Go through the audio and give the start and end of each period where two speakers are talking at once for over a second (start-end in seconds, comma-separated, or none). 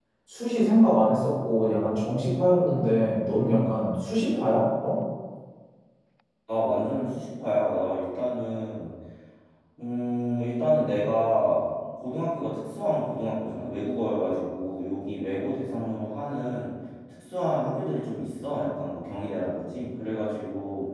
none